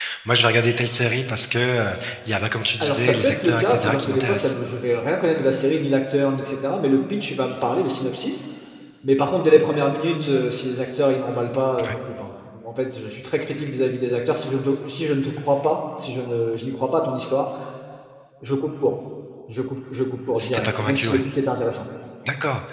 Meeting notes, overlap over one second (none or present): present